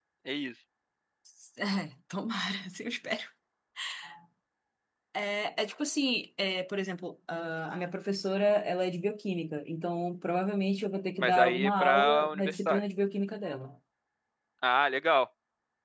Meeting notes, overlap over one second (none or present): present